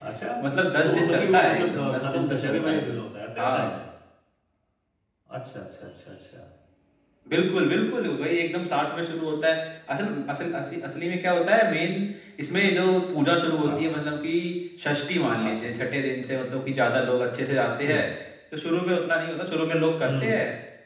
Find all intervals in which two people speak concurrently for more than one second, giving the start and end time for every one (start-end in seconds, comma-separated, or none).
0.8-3.0